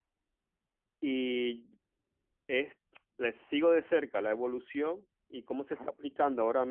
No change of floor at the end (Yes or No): Yes